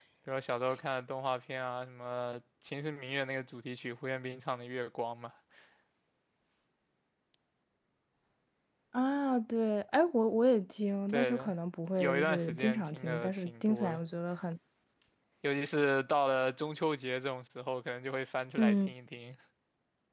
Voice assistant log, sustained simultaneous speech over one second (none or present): present